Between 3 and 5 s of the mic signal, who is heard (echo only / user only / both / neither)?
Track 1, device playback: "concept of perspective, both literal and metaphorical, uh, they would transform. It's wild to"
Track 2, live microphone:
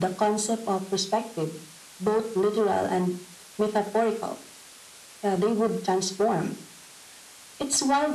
echo only